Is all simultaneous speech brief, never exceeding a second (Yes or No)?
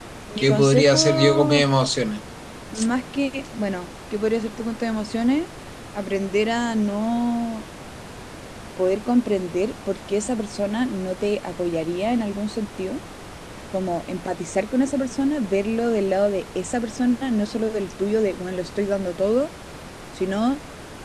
No